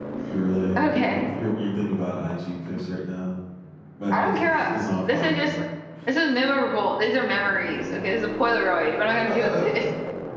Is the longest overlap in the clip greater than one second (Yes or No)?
Yes